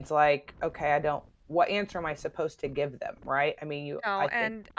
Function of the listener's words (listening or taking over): taking over